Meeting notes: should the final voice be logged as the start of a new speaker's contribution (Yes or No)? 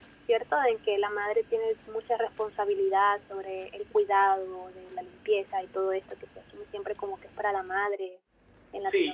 Yes